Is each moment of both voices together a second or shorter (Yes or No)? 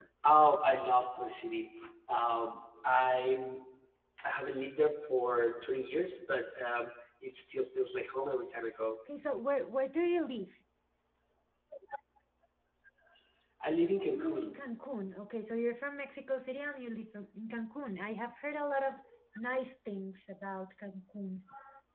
Yes